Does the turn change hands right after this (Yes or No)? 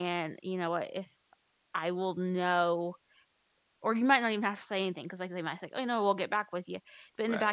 No